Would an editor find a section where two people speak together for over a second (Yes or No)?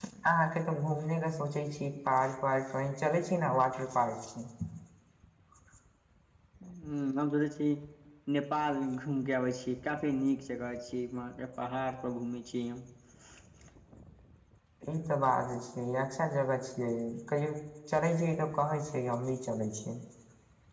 No